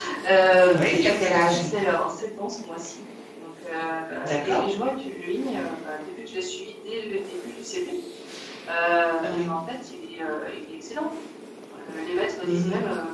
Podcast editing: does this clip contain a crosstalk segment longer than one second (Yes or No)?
No